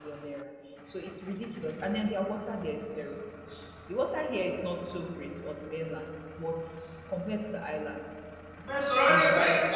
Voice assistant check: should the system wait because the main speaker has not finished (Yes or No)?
No